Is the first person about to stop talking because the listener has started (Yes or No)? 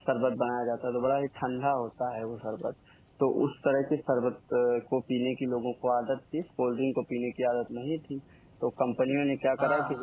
Yes